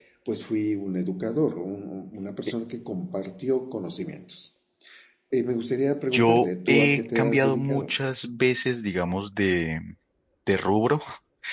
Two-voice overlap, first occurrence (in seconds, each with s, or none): 6.1 s